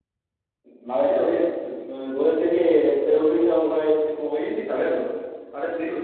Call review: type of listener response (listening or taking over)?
taking over